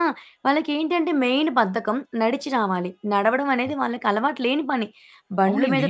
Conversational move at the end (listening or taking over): listening